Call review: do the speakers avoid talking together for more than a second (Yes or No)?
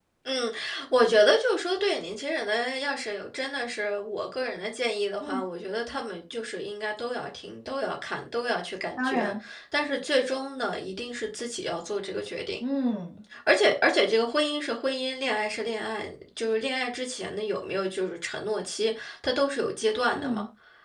Yes